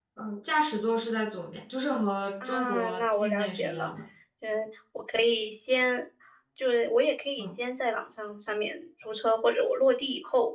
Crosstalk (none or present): present